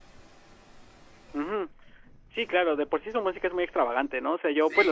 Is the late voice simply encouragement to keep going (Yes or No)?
Yes